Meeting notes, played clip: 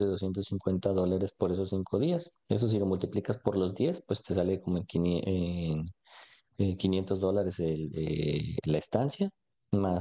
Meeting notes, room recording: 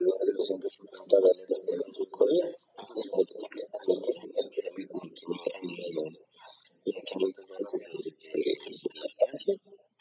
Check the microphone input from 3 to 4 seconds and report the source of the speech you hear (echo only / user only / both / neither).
echo only